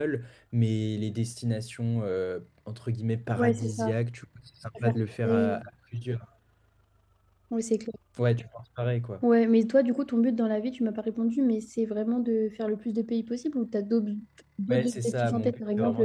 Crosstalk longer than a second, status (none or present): present